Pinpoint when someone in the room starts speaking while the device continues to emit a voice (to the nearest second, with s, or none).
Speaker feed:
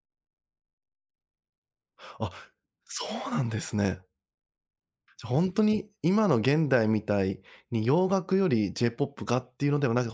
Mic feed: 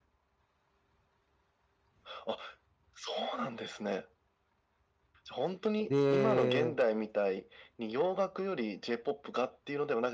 6 s